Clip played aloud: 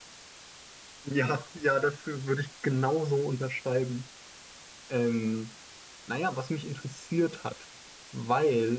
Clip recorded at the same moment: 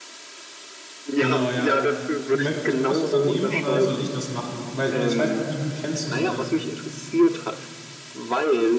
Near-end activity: present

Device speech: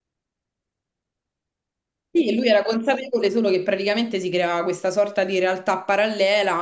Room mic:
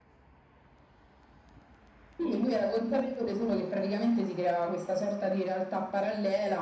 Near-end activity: none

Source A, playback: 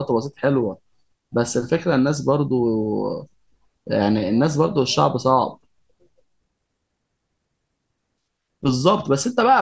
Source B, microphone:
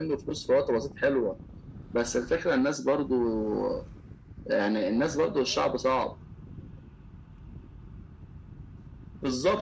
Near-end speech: none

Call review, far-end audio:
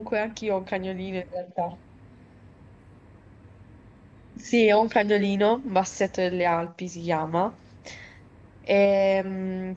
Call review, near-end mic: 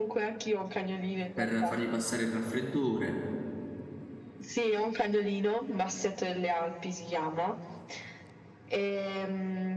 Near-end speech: present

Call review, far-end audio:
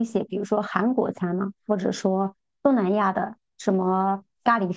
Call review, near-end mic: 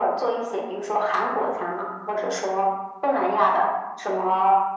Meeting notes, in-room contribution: none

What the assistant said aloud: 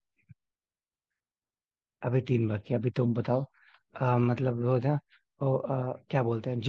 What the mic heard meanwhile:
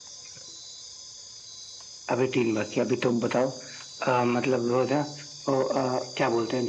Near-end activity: none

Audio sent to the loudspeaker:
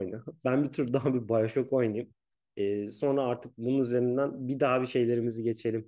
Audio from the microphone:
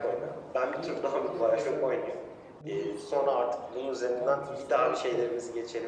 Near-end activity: present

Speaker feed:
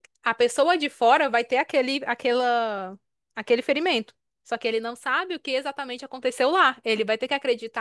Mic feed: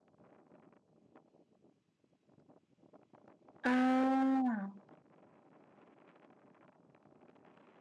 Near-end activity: present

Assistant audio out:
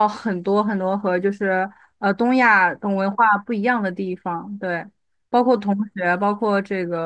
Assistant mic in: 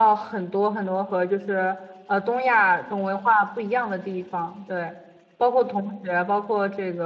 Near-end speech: none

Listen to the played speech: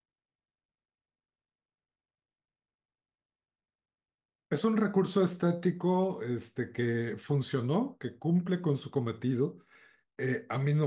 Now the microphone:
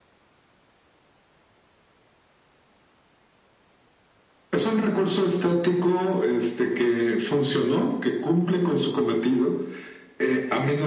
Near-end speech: none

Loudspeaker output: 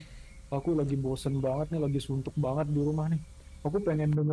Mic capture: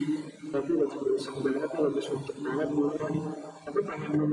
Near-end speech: none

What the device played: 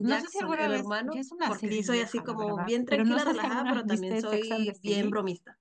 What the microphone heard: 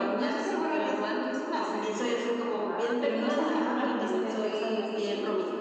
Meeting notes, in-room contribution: present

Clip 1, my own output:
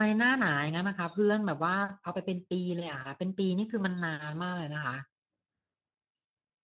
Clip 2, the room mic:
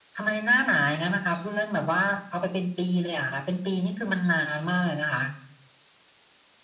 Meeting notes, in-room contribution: none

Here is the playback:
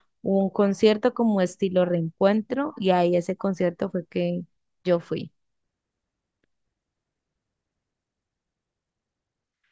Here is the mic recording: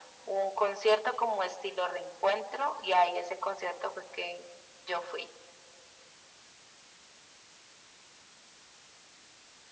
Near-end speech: none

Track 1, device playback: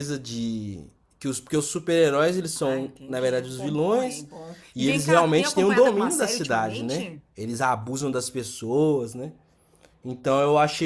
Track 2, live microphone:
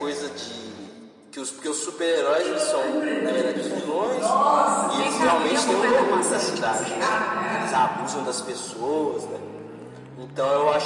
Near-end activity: present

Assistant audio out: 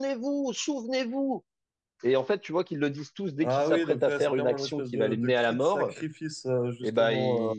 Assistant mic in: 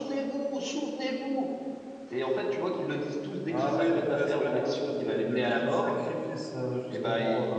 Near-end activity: none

